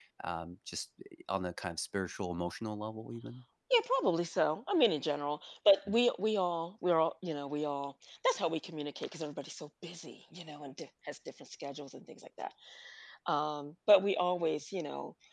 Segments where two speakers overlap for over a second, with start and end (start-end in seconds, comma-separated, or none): none